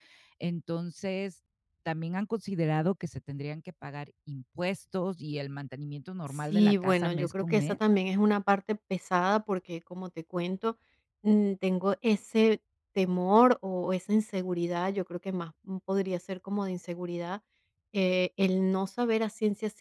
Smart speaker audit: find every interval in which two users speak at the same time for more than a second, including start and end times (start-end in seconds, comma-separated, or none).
6.3-7.8